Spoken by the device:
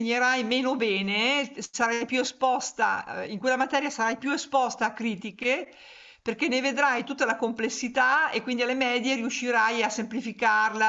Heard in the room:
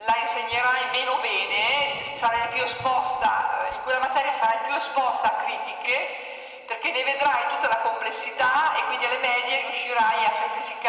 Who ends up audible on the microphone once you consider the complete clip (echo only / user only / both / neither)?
echo only